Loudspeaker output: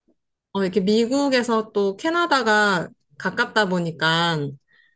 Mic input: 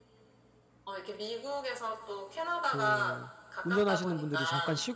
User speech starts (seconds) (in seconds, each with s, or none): 2.6 s